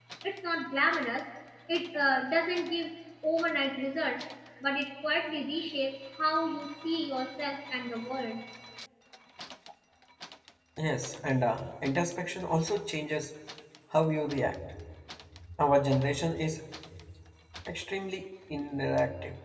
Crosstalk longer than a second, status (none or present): none